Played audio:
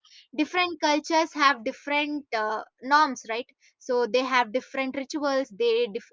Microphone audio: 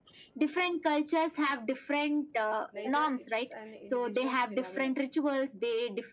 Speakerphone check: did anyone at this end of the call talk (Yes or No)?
Yes